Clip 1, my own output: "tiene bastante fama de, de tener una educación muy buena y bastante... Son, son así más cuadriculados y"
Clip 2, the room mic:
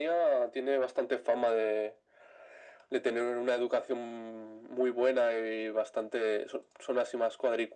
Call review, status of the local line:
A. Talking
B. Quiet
B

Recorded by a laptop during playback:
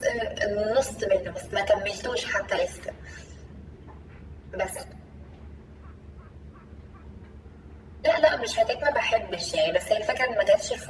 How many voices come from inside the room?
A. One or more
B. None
B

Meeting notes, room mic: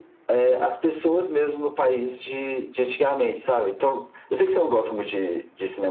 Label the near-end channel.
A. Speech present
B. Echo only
B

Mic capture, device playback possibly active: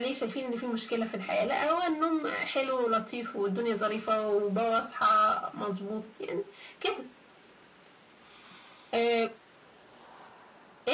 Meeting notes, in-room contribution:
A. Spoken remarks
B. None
B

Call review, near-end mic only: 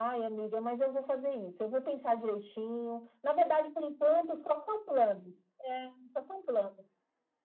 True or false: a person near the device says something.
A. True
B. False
B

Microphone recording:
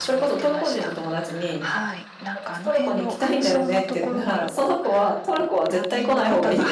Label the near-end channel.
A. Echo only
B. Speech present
B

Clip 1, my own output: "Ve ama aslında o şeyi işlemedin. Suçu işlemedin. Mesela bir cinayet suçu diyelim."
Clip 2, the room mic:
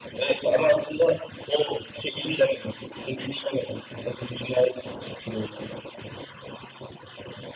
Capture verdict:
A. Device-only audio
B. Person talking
A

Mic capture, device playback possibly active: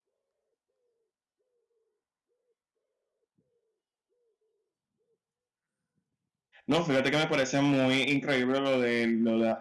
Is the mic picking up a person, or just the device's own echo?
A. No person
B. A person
B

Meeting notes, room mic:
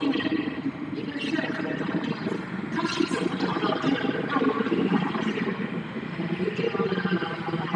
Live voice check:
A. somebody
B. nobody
B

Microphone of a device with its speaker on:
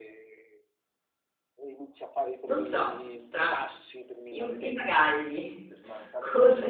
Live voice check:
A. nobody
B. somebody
B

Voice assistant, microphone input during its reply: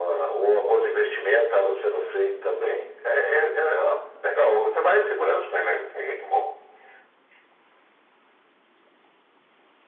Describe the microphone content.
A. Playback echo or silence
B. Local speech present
A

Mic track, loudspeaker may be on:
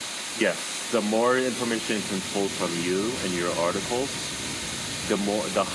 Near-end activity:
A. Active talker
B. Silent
B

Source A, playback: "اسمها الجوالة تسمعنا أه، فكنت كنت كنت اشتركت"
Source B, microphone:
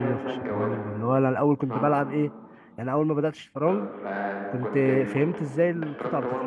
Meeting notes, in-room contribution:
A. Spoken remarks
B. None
A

